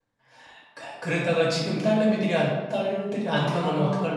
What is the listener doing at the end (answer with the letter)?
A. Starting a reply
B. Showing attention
A